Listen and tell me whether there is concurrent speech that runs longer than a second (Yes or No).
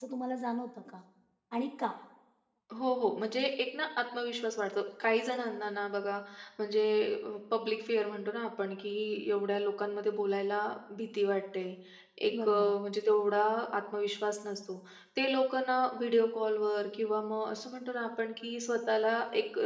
No